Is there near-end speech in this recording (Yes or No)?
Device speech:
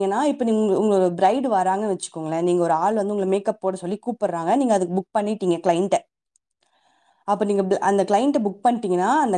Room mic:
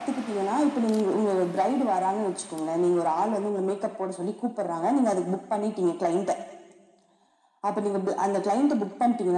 No